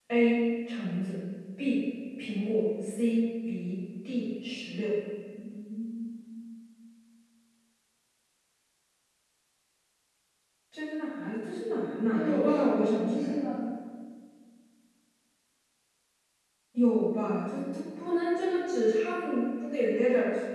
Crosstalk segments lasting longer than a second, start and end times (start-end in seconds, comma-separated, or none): 12.1-13.3